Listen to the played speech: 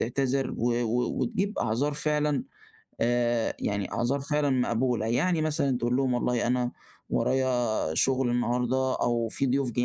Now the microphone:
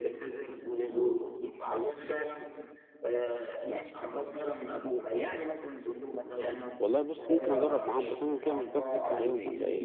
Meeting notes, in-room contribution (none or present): present